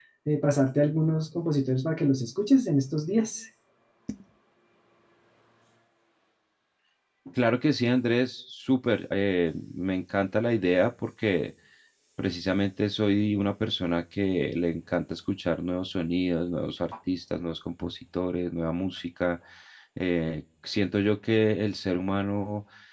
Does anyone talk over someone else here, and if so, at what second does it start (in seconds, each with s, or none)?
none